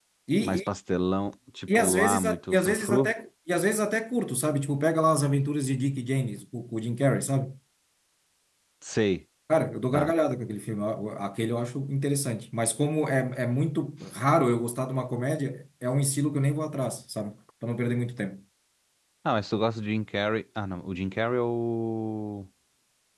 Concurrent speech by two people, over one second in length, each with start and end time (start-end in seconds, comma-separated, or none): 1.8-3.1